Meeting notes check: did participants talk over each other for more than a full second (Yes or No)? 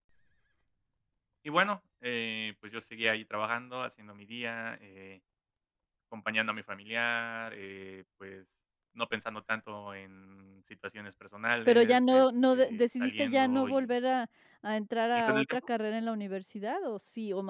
Yes